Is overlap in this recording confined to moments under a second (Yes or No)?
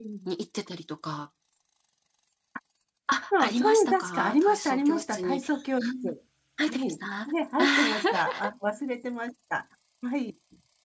No